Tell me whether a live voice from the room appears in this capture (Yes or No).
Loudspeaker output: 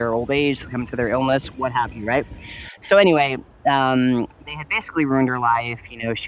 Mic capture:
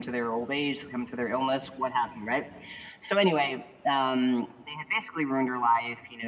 No